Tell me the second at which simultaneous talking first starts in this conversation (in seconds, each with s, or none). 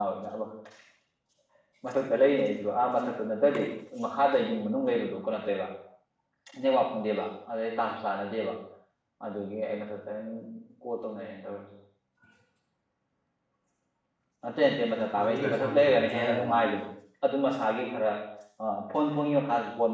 15.2 s